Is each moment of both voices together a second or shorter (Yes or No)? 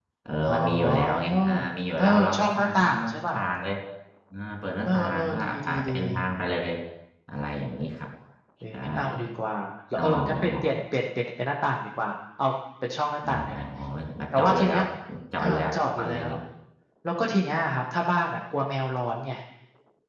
No